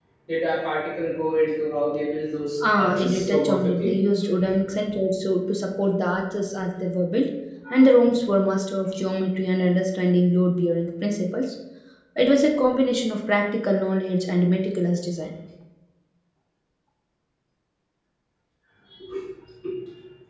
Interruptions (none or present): present